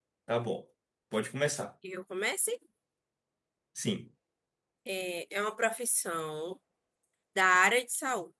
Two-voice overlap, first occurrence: none

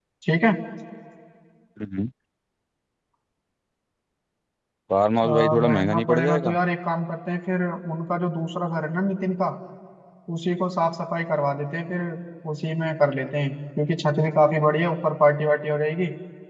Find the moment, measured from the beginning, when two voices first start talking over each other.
5 s

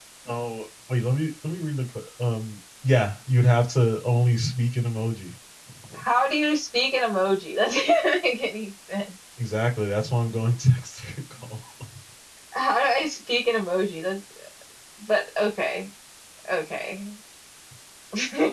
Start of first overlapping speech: none

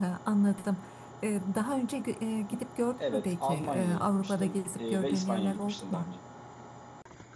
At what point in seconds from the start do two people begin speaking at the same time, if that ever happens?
3 s

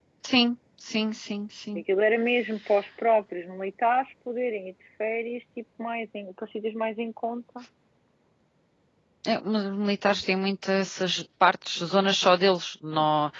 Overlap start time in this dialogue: none

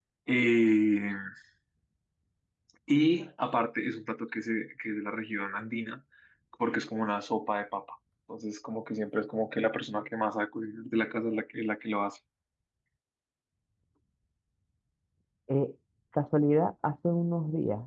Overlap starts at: none

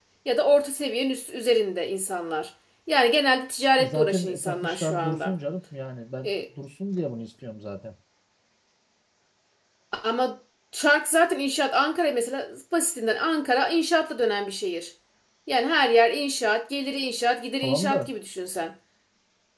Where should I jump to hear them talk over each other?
4 s

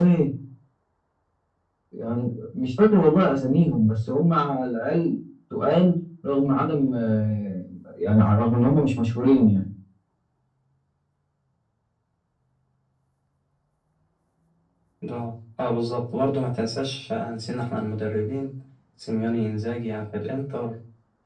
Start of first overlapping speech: none

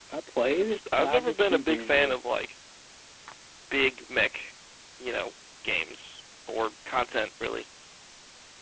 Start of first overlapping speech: 1 s

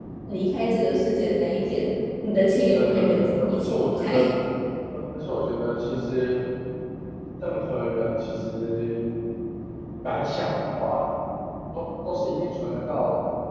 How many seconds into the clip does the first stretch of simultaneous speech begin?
3 s

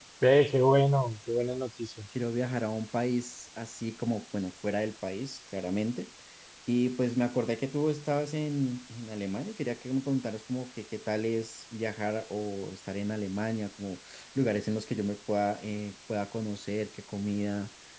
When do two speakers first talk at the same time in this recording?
none

